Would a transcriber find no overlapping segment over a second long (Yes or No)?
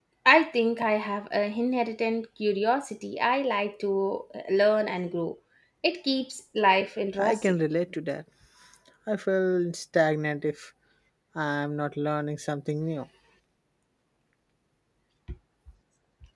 Yes